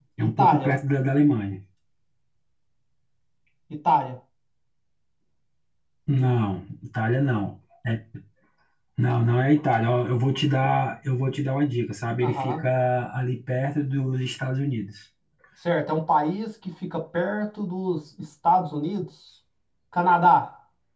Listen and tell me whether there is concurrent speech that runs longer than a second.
No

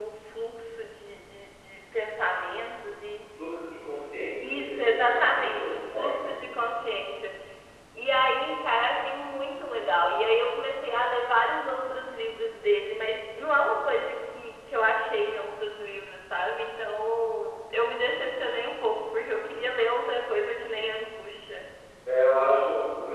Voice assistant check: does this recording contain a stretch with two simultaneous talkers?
Yes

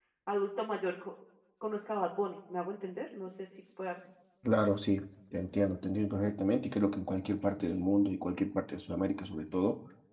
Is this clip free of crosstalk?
Yes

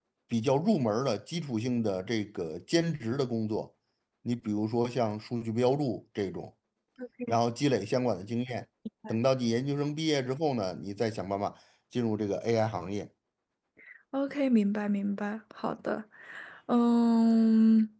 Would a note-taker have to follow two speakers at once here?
No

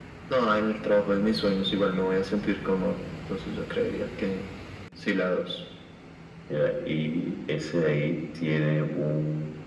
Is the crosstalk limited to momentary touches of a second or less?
Yes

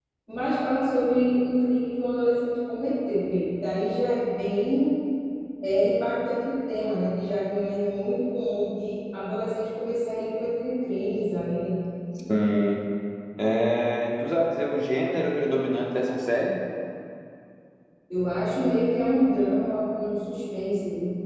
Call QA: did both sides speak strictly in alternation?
Yes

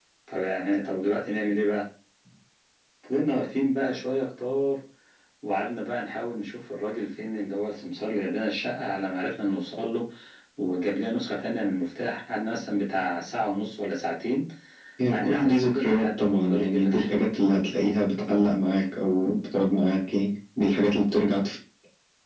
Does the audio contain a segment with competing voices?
Yes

